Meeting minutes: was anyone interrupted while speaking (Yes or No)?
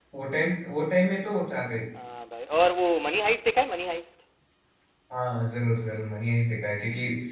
No